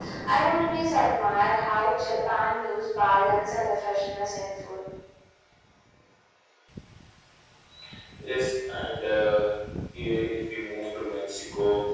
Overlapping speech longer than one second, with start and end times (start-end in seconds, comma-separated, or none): none